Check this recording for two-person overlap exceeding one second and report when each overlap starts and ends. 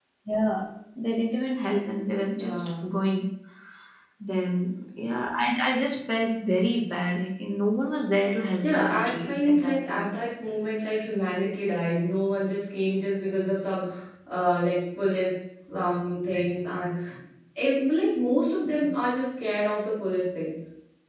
8.6-10.1

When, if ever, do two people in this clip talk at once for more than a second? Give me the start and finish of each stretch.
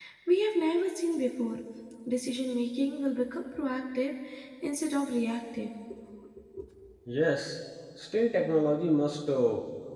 none

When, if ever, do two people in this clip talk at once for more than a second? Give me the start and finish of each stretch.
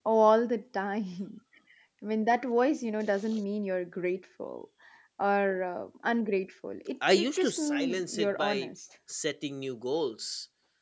7.1-8.7

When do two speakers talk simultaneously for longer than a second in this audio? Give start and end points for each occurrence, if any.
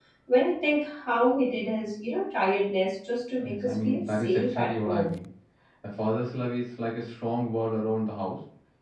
3.4-5.1

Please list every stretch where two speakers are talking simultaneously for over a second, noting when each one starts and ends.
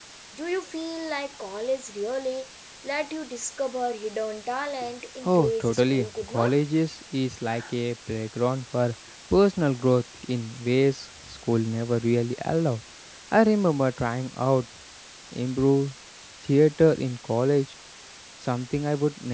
5.2-6.5

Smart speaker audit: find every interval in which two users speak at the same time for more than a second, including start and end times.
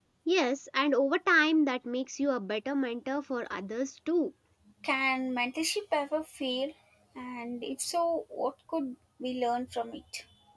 none

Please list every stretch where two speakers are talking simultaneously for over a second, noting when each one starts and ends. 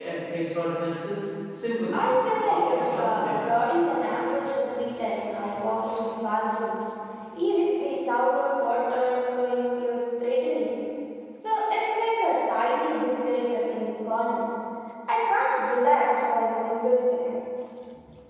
1.9-3.8

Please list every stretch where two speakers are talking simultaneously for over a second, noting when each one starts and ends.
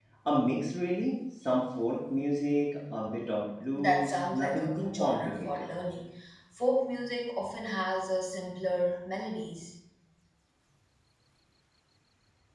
3.8-5.7

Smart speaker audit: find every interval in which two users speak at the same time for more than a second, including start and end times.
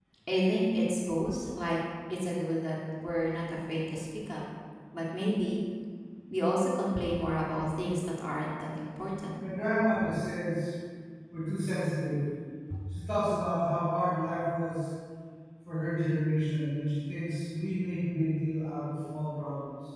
none

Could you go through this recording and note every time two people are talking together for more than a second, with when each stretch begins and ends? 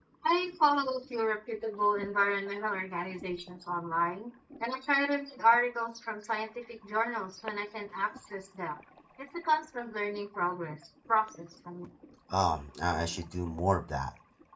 none

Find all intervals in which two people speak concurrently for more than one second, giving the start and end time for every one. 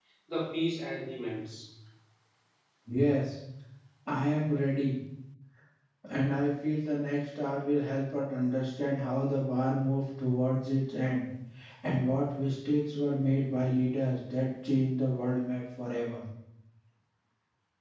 none

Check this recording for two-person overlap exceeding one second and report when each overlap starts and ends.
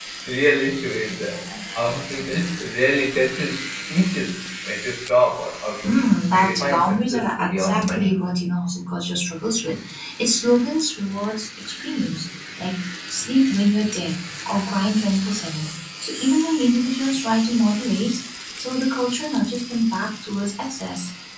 6.3-8.2

